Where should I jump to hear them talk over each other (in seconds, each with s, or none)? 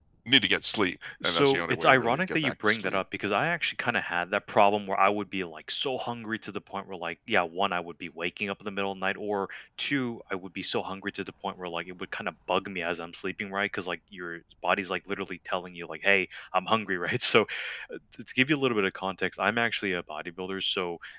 1.2 s